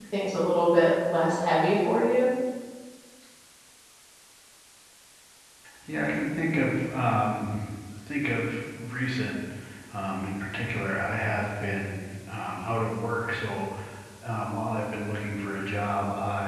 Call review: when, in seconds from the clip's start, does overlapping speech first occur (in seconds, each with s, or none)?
none